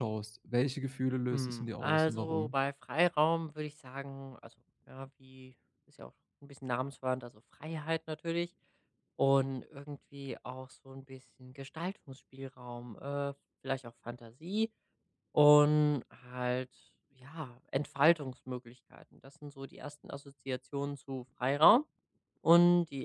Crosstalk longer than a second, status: present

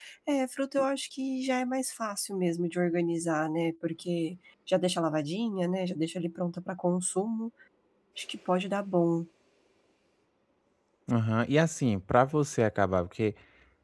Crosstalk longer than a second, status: none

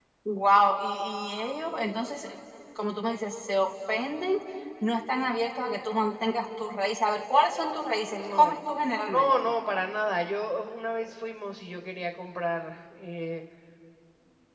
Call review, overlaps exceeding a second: none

